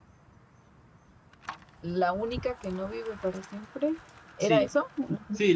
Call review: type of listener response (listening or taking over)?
taking over